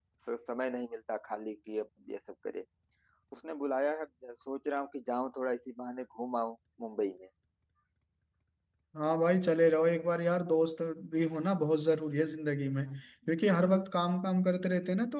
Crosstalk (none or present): none